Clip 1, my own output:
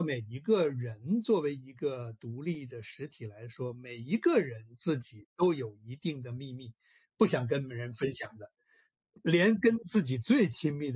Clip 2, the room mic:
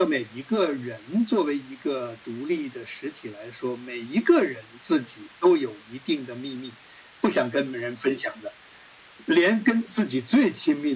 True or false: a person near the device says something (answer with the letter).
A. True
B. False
B